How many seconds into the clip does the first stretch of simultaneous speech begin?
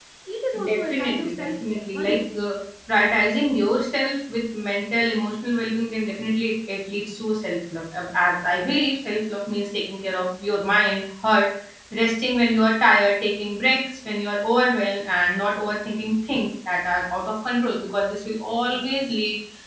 0.6 s

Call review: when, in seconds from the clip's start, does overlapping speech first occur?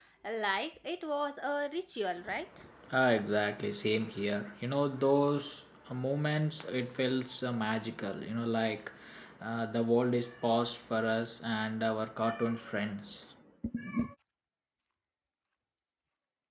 none

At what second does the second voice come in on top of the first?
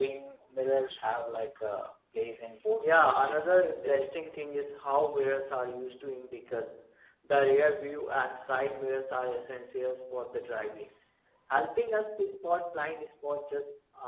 2.8 s

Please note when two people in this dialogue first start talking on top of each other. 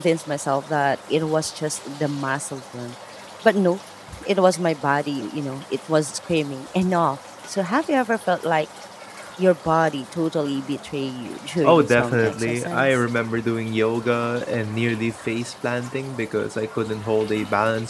11.6 s

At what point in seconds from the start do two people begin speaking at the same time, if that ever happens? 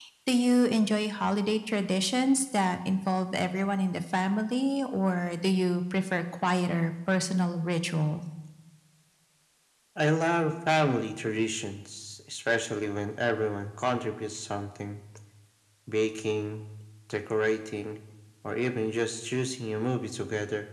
none

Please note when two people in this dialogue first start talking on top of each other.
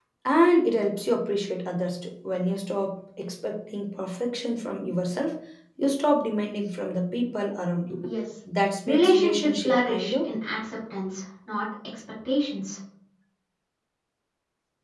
8.9 s

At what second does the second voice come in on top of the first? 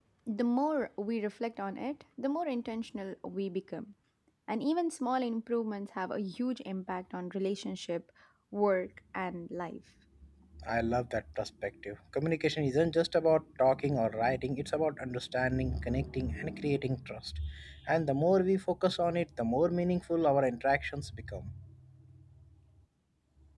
none

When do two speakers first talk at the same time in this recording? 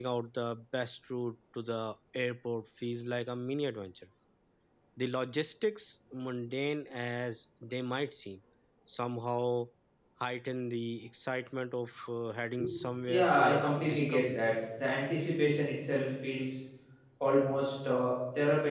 13.1 s

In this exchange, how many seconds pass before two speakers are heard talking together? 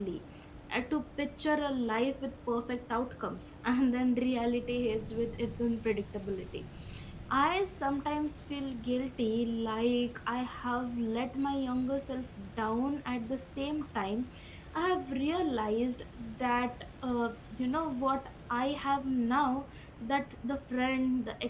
none

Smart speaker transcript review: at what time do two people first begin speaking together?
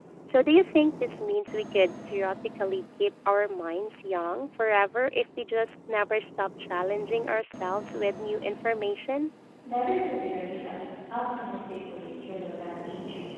none

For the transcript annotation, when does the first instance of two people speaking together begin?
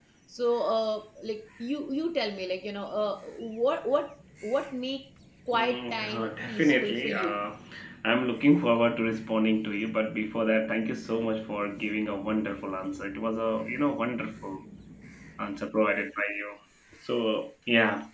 5.5 s

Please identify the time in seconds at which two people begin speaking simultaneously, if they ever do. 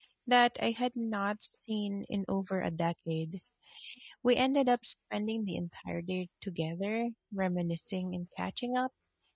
none

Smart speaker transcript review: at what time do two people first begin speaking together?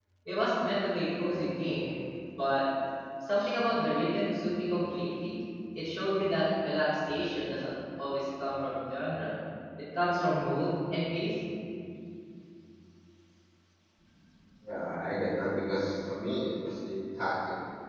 none

